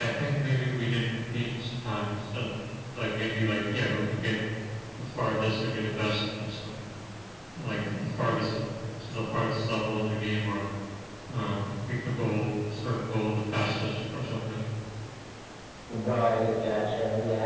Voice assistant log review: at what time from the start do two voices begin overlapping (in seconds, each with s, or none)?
none